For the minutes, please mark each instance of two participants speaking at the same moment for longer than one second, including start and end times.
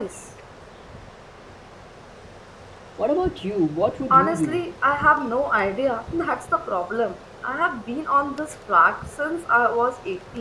none

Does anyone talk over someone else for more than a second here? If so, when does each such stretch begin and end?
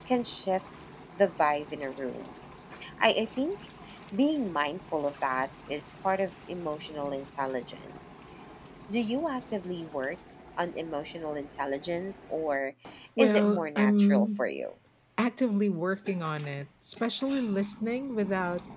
13.2-14.4

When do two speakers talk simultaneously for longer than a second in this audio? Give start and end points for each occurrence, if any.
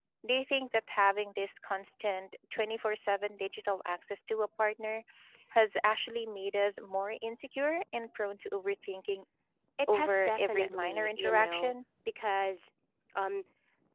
9.9-11.7

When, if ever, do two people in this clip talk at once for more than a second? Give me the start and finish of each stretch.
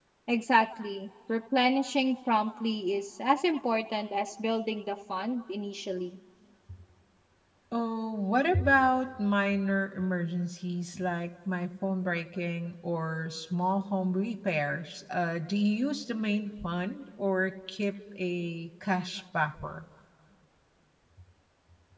none

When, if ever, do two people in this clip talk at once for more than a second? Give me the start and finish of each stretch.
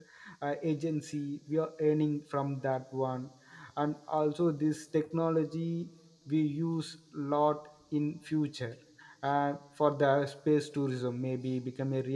none

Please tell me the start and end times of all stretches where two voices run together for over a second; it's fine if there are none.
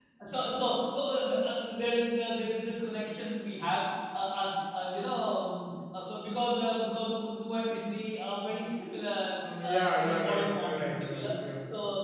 9.6-11.3

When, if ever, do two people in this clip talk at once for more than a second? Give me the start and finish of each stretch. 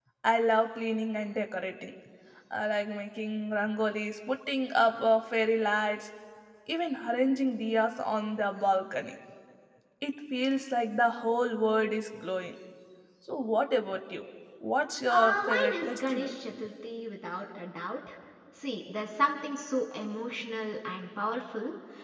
15.1-16.3

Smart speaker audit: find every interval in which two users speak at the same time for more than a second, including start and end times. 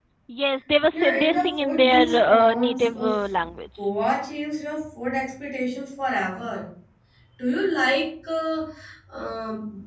0.9-3.1

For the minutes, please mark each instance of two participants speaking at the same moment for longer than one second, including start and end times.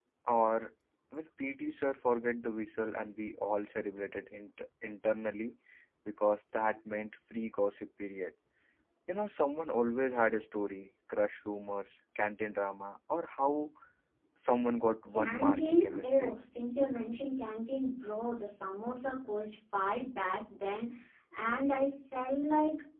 15.1-16.3

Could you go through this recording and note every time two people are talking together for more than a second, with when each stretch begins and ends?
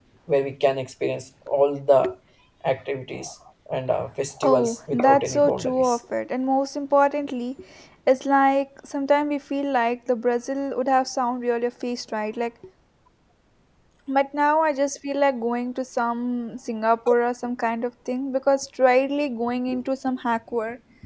4.4-6.0

